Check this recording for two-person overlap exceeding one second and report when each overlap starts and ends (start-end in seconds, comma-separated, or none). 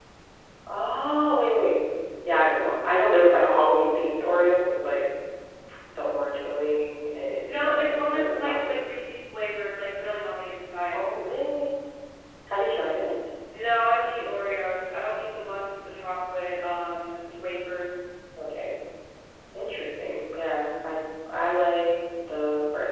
7.5-8.7